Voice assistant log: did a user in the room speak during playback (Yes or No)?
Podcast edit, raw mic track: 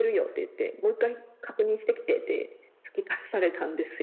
No